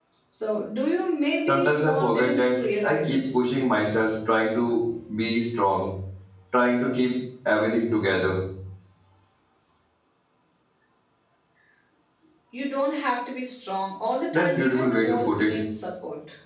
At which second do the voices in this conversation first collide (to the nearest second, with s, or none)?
1 s